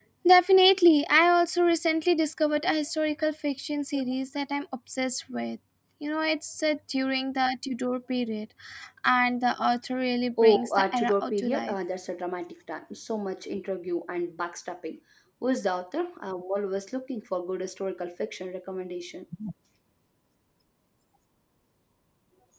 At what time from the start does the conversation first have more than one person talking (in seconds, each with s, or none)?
10.4 s